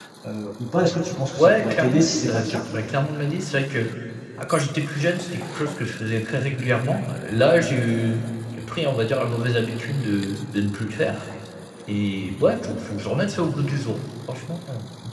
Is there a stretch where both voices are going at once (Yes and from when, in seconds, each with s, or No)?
Yes, from 1.4 s